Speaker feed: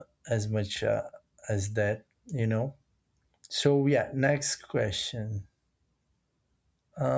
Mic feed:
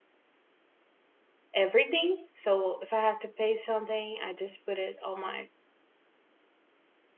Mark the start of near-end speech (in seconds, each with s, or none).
1.5 s